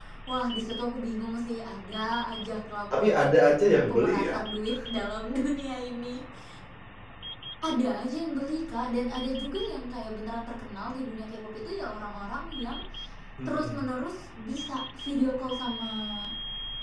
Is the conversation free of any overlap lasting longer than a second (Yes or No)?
Yes